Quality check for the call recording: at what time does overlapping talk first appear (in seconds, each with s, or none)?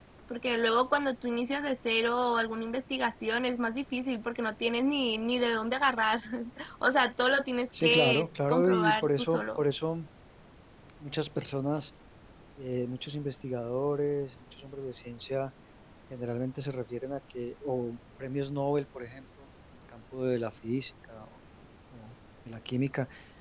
7.7 s